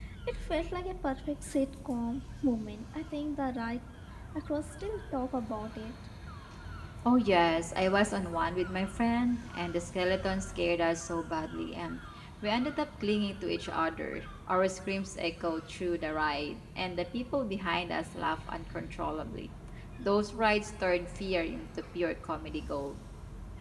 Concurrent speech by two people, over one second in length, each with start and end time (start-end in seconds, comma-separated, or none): none